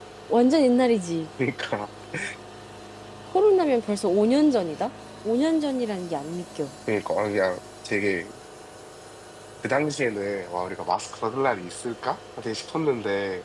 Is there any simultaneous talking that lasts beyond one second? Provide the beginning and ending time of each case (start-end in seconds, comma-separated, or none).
none